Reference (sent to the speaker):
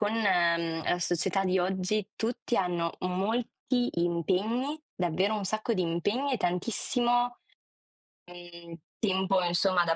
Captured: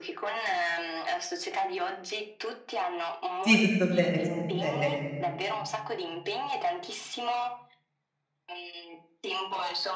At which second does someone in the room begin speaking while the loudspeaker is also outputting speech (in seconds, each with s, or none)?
3.4 s